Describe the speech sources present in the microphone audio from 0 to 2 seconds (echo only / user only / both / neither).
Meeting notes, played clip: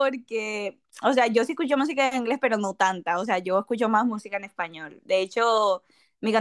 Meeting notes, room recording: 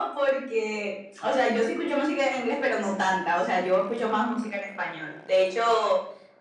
echo only